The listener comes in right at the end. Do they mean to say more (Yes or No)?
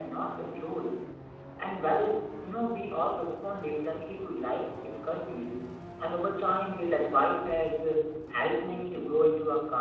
No